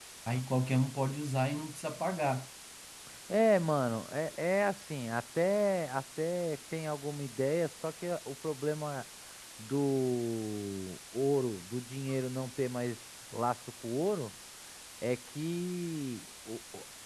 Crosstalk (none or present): none